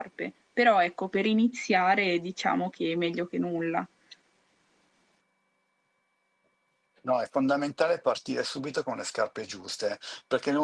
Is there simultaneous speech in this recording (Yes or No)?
No